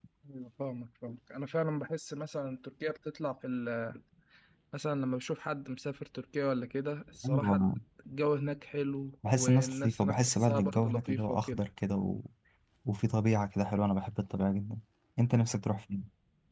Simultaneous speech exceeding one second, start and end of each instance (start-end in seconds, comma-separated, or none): 9.4-11.6